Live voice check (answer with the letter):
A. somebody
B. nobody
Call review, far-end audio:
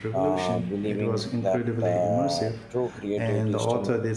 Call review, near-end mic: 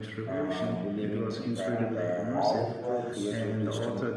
A